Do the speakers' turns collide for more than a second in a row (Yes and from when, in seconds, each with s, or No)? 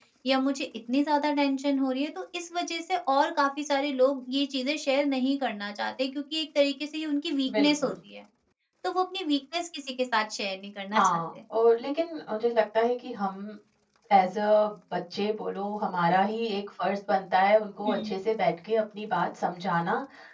No